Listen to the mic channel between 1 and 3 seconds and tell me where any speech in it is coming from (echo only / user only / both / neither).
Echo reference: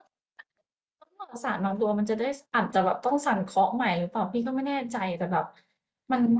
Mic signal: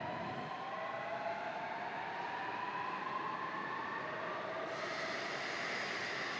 neither